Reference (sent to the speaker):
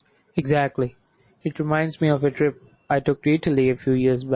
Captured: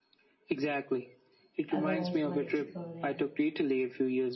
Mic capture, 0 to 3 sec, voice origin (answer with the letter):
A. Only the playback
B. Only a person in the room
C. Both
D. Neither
C